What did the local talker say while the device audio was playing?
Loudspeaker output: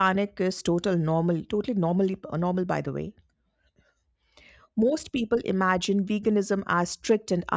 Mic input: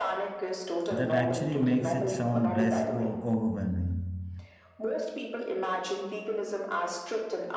That actually makes it sound less o- overwhelming.

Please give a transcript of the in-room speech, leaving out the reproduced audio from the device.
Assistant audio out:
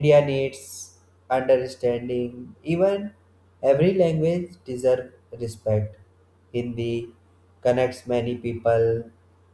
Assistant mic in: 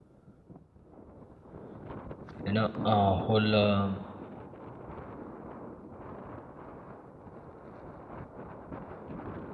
you know, uh, whole um,

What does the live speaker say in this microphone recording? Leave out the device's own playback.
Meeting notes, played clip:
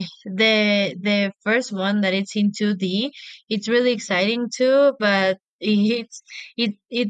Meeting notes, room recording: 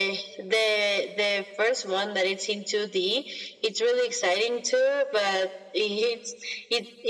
none

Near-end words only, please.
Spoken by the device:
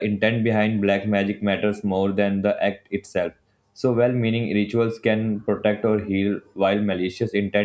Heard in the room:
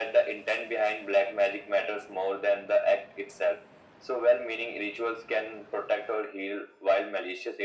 none

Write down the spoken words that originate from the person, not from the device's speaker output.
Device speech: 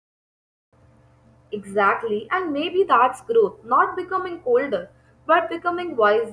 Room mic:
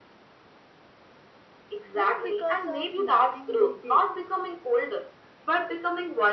Not because of nothing they did,

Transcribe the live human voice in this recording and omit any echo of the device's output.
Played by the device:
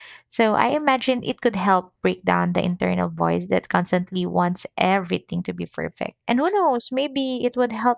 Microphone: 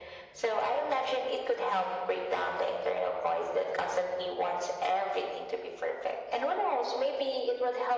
none

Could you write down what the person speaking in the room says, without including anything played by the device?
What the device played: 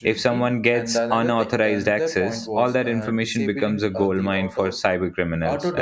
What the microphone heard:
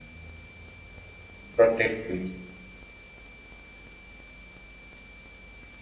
protectivity.

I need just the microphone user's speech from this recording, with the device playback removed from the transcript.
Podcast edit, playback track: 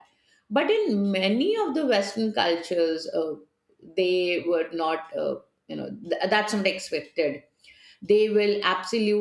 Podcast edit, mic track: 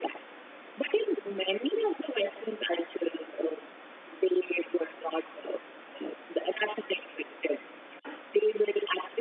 none

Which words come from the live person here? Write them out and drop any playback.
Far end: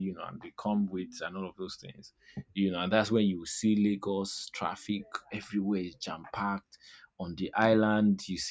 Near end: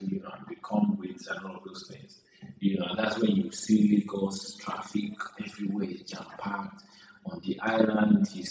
none

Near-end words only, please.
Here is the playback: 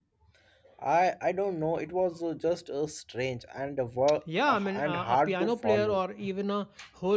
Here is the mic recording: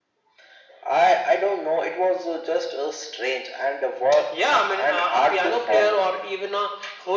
none

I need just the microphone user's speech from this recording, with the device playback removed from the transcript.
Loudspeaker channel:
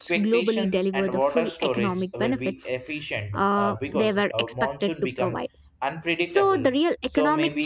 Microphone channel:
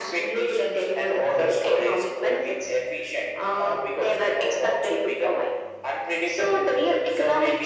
none

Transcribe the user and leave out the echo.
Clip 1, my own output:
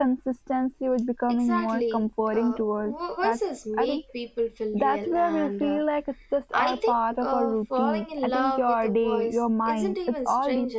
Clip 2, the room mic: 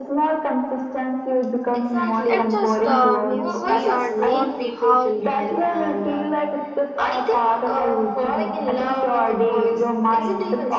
It just uh, means we are drawn to how

